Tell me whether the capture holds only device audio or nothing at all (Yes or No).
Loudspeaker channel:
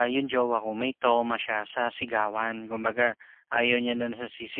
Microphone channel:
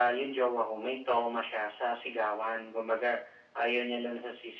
Yes